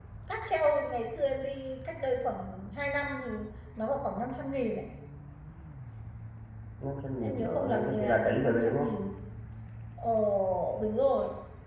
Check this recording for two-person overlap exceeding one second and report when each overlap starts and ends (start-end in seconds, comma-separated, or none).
7.2-8.9